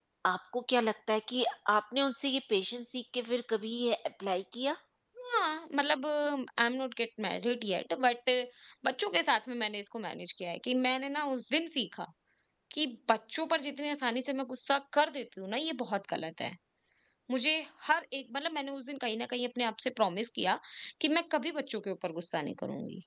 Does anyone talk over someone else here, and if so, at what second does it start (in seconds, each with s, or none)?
none